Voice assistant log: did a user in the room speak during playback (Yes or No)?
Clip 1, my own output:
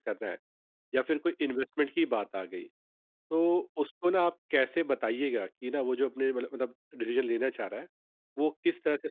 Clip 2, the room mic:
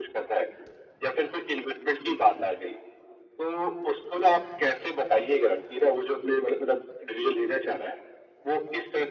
No